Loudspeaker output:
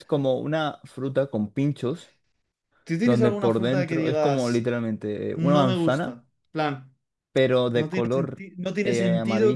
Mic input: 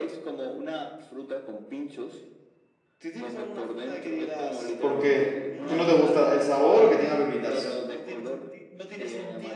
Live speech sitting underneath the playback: No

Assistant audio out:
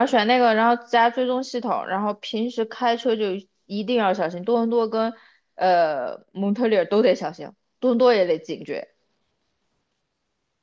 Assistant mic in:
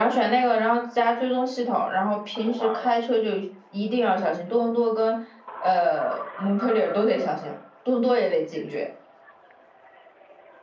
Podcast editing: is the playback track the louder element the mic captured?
Yes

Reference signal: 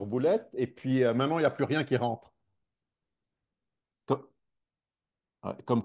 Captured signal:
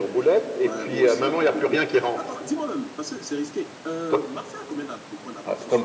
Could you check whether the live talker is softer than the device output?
Yes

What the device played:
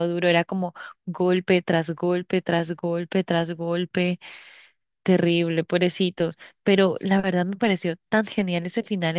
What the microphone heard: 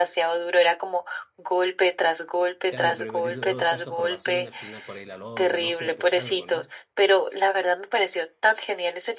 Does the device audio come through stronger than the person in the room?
Yes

